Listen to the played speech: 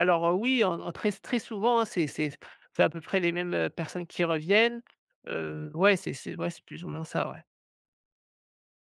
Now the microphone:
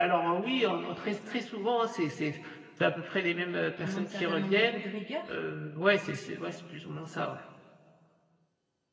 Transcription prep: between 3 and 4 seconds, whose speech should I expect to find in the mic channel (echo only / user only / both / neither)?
both